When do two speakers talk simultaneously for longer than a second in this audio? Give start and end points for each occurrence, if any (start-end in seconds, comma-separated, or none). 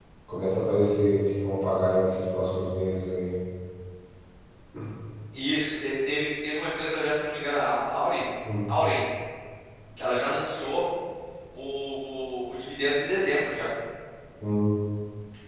none